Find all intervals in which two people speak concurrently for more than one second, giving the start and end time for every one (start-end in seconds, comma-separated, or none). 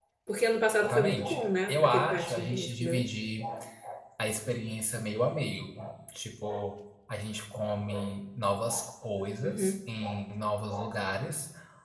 0.8-3.1